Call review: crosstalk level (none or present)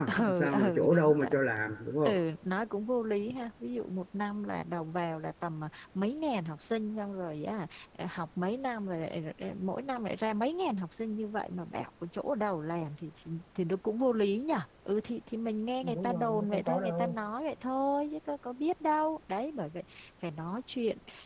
present